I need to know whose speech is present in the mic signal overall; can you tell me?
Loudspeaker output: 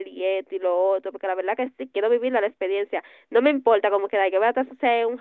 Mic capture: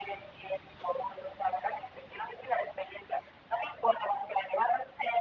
echo only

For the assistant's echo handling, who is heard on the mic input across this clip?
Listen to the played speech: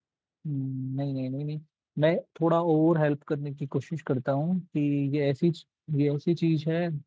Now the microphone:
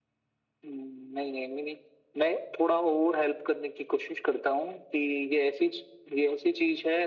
echo only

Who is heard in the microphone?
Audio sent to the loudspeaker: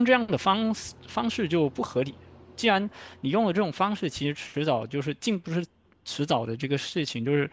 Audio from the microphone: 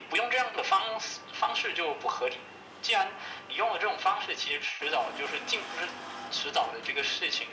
echo only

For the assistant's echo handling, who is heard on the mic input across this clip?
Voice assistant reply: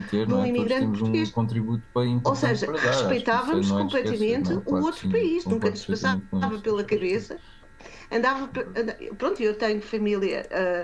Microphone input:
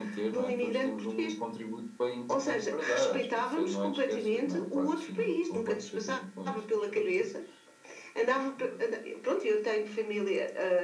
both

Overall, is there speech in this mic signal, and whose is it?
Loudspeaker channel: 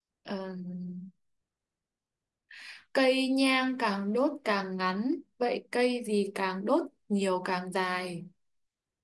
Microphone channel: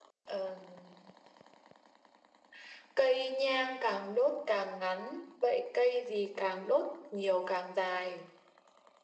echo only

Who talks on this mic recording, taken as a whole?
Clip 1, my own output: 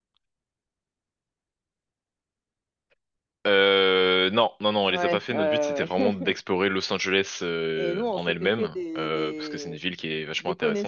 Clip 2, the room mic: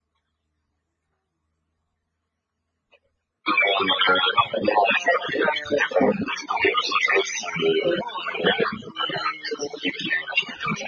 echo only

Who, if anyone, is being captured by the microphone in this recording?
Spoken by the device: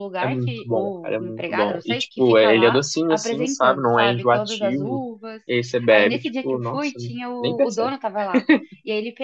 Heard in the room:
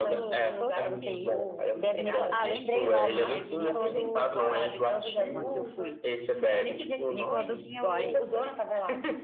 both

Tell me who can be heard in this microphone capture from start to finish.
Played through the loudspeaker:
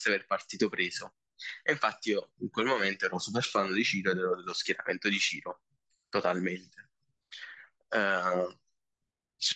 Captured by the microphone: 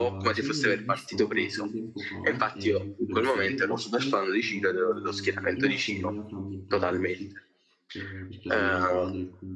both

